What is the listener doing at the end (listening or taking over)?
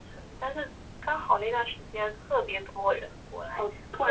taking over